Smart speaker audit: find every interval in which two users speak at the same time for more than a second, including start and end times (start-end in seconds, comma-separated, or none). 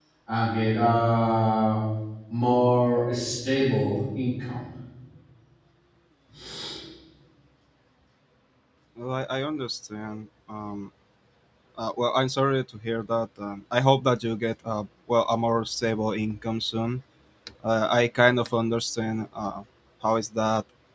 none